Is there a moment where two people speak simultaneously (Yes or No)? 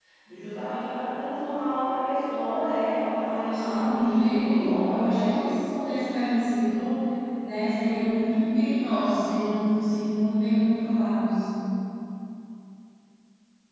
Yes